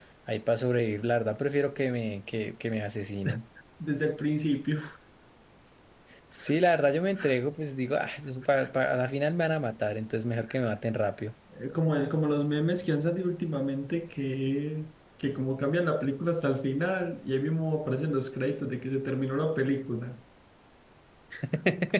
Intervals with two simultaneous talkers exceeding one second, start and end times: none

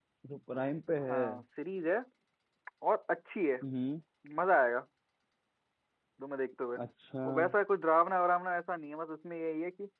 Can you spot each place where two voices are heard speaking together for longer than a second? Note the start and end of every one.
none

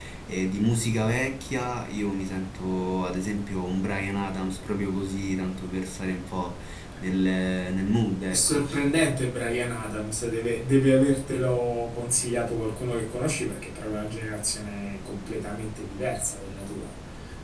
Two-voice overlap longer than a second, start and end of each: none

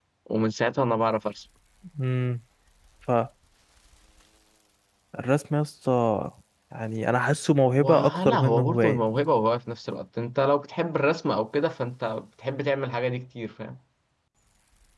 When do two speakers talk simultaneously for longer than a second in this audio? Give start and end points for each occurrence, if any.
7.7-9.0

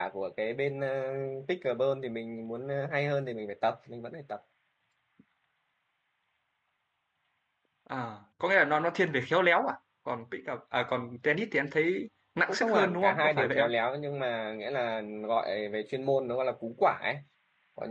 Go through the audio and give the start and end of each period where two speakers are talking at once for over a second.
12.5-13.7

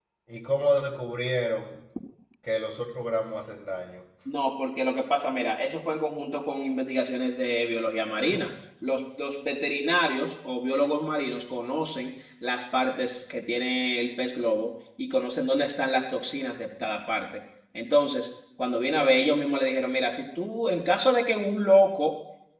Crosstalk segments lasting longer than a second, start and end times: none

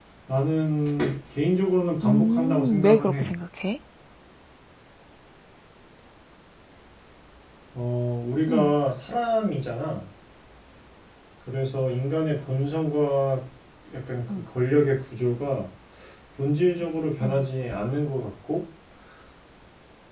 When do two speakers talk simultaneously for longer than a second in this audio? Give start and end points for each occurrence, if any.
2.0-3.3

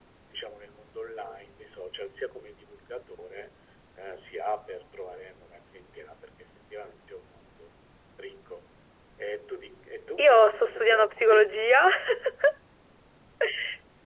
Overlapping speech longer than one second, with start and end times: 10.2-11.6

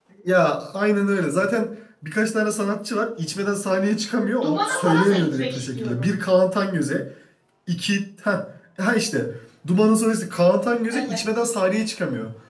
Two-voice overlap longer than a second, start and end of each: 4.4-6.1

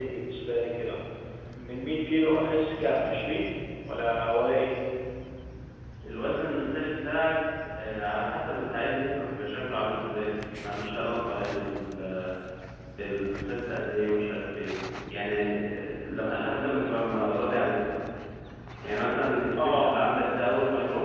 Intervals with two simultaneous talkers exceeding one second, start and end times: none

